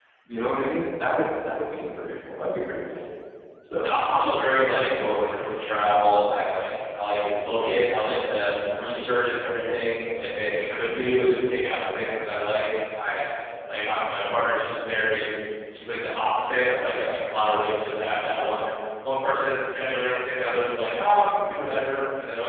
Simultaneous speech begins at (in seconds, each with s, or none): none